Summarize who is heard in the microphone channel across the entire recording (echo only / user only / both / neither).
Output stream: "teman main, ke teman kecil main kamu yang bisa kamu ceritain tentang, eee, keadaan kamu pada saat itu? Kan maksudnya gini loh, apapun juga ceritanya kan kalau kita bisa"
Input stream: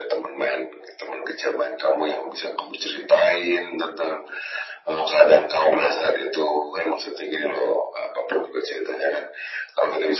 echo only